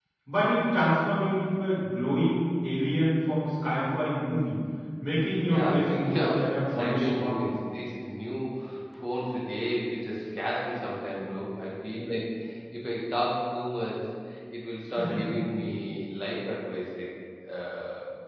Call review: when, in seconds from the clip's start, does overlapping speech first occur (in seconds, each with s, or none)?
5.4 s